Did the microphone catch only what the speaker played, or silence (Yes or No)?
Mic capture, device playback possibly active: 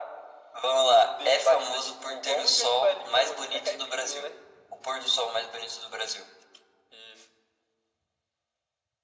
Yes